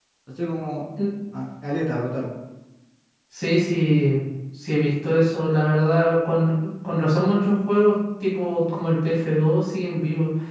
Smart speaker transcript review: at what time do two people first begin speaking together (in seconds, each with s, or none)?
none